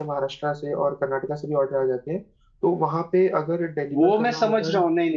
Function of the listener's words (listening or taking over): taking over